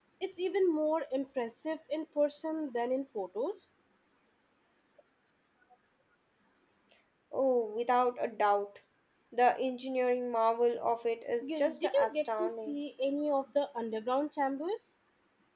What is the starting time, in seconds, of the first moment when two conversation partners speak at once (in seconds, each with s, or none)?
11.4 s